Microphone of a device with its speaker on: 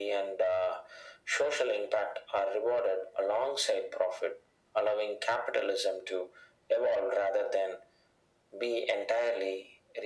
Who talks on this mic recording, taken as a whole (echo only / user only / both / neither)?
echo only